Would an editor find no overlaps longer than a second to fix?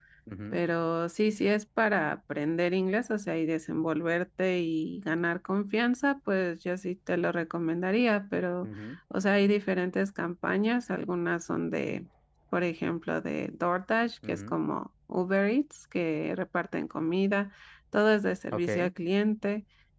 Yes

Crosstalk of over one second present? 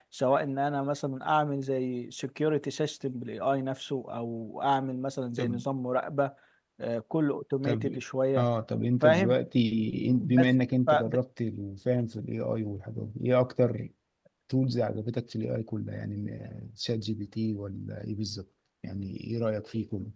No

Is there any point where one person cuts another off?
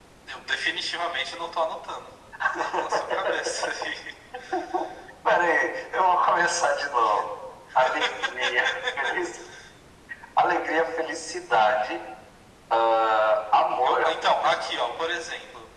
Yes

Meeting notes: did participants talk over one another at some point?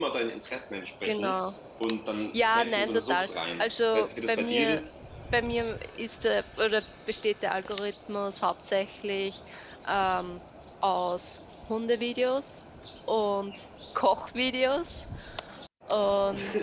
Yes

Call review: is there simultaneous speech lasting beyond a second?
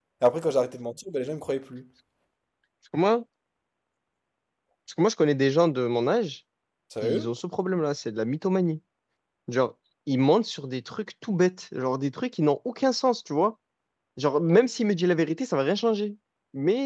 No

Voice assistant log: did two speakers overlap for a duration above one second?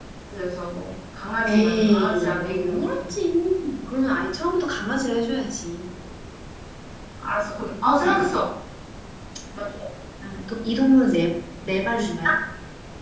Yes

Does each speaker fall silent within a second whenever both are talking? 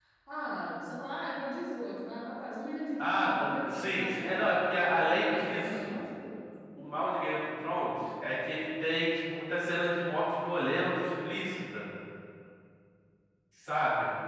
No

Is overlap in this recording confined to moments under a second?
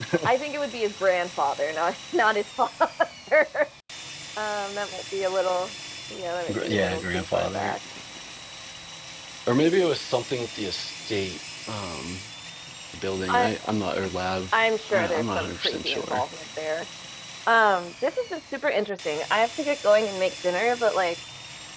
No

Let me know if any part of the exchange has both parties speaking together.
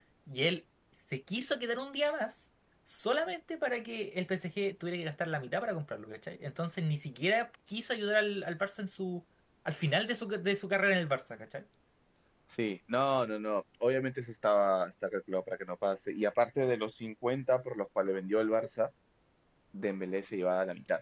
No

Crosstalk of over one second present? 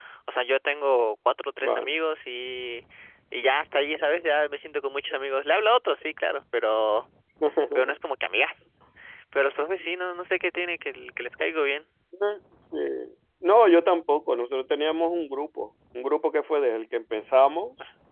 No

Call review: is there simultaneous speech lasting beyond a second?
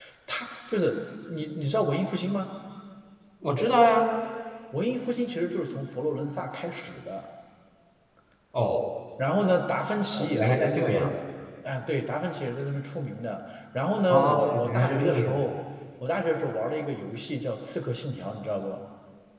Yes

